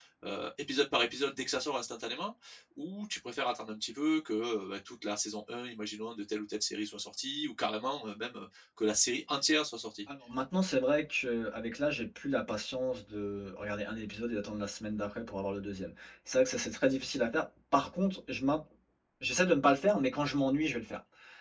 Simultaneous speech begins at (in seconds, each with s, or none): none